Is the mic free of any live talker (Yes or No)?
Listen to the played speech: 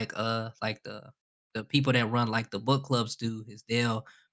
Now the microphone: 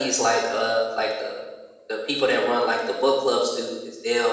Yes